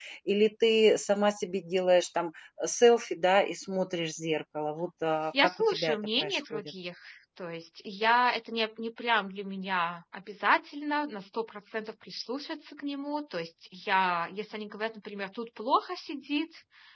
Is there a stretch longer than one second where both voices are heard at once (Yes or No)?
Yes